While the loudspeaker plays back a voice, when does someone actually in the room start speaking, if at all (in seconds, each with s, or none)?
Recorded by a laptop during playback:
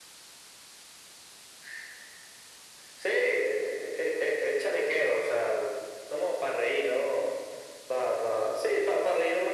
none